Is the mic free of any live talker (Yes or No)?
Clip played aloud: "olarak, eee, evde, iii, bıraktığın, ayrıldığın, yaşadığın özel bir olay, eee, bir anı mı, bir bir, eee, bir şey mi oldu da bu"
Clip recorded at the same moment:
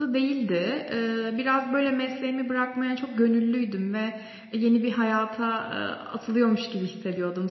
No